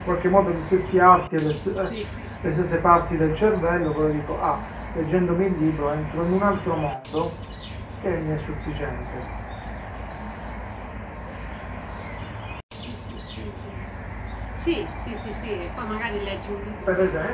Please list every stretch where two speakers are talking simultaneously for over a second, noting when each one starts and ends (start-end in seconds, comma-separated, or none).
none